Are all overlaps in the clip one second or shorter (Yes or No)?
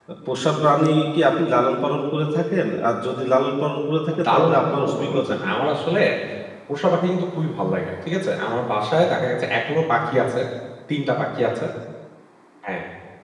No